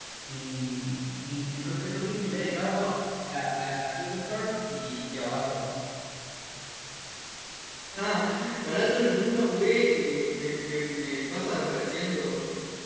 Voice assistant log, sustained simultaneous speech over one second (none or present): none